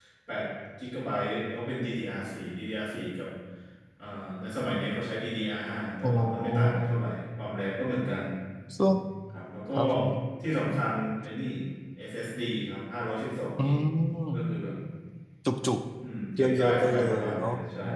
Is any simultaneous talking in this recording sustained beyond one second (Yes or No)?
Yes